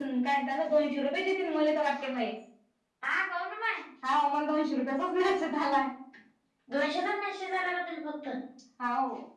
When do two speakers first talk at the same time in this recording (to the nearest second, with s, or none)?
none